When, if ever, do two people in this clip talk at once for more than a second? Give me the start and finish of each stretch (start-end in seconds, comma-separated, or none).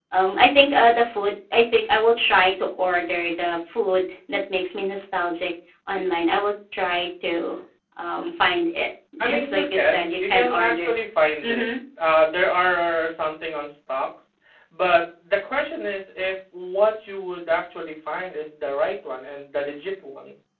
9.2-10.9